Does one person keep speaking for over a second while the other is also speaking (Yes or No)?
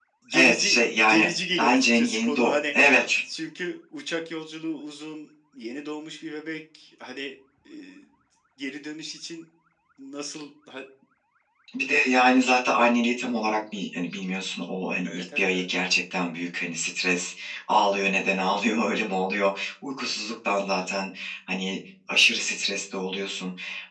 Yes